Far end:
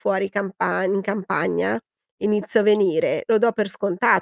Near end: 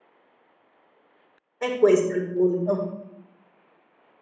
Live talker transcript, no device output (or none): È questo il punto.